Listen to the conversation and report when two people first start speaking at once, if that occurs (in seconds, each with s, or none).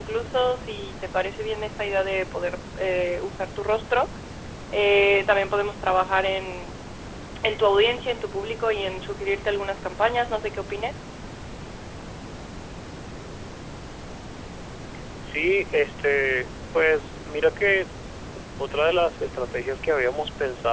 none